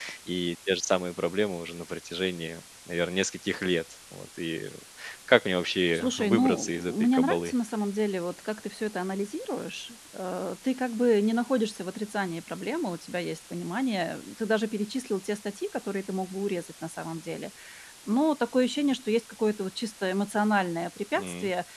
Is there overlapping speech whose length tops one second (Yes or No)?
Yes